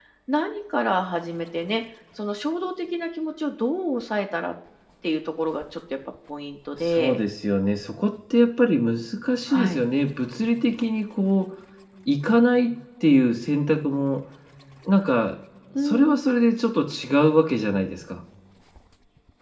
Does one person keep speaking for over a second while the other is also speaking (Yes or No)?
No